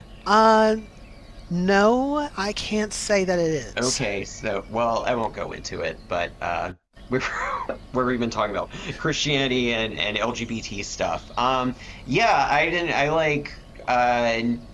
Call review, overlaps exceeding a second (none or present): none